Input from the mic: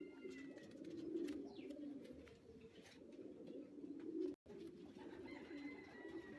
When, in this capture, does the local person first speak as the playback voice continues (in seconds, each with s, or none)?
none